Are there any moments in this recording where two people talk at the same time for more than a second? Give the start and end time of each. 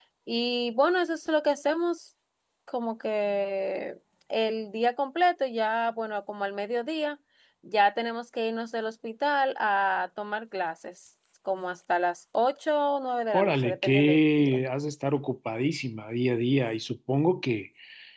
13.3-14.6

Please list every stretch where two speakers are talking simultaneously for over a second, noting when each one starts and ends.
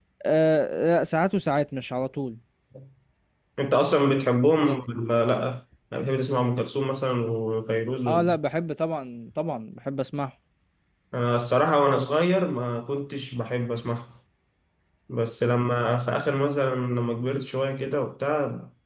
none

